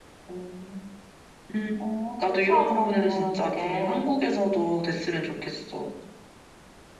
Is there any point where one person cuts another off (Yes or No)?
Yes